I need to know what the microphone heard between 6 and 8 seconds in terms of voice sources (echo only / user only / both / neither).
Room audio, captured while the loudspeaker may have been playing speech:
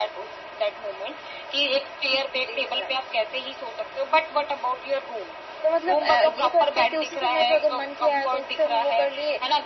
echo only